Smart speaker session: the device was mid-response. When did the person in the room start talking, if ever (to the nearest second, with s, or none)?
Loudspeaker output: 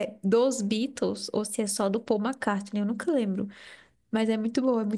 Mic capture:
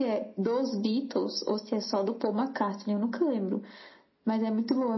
none